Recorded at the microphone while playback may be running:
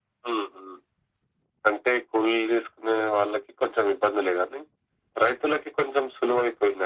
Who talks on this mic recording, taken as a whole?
echo only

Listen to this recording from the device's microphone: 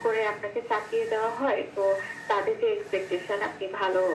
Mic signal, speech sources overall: echo only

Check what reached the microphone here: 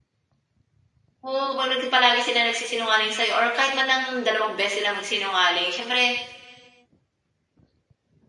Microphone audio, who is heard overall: user only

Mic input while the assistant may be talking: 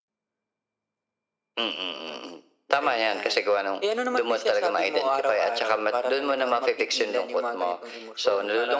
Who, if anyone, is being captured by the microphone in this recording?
echo only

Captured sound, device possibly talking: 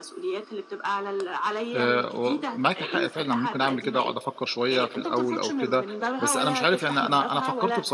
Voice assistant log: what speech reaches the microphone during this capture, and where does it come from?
both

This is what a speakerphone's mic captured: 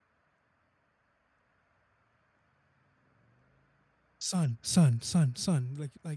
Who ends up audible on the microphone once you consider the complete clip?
user only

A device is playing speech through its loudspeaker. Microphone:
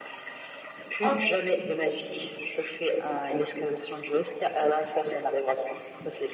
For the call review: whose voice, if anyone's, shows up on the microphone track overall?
both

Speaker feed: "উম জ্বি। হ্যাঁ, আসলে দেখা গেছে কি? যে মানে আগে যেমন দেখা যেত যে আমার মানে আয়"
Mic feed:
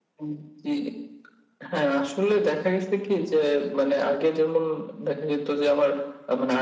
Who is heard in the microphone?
echo only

